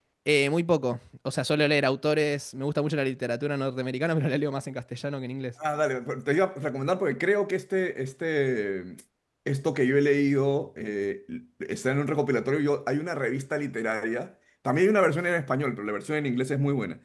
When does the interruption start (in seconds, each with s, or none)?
none